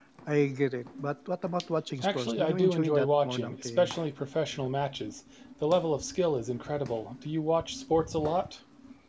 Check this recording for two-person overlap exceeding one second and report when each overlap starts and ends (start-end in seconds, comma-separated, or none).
2.0-3.9